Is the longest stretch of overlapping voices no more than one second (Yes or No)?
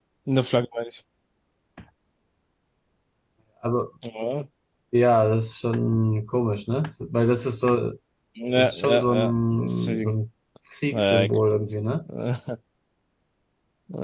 No